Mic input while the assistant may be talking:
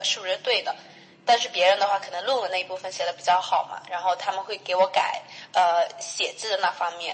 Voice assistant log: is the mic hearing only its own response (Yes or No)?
Yes